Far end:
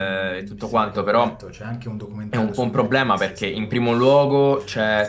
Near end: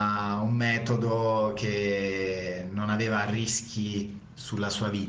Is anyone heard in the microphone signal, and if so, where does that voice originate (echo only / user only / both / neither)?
user only